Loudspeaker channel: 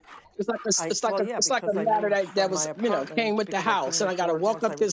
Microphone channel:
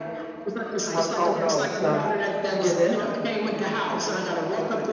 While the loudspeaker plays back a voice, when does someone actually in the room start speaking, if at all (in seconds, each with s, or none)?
0.9 s